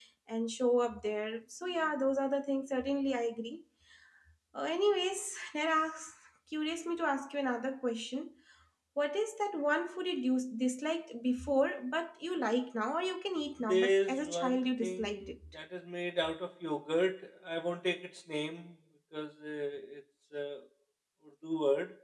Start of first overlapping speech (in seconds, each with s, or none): 13.6 s